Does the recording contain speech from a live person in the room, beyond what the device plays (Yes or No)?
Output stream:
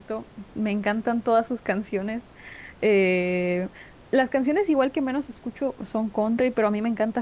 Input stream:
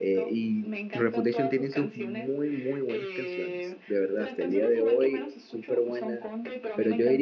Yes